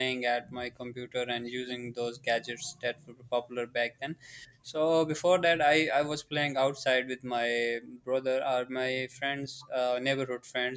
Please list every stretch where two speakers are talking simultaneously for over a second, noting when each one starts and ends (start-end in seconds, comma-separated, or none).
none